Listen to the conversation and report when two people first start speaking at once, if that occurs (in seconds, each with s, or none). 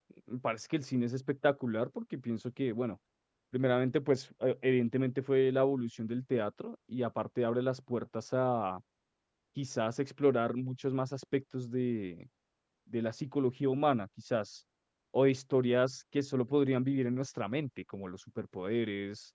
none